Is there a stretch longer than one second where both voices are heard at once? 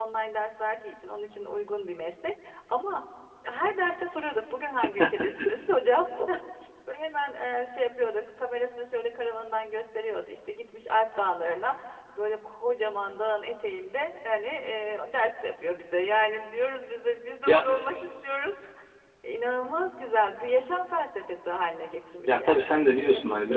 Yes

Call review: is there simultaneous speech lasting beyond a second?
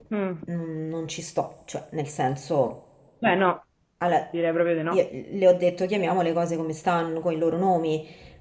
No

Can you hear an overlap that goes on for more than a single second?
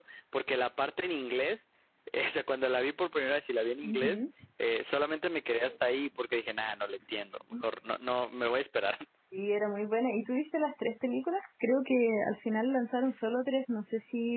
No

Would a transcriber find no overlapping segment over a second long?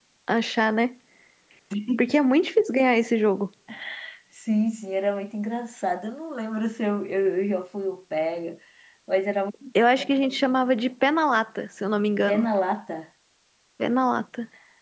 Yes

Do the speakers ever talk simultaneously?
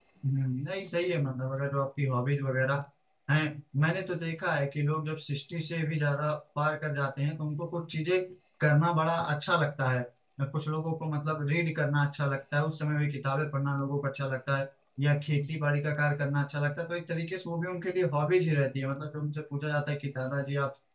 No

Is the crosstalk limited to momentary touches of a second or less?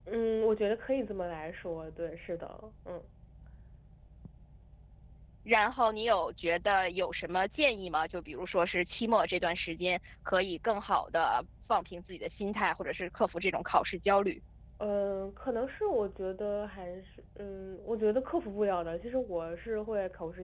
Yes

